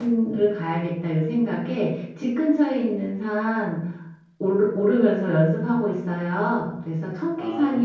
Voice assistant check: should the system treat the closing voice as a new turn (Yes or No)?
No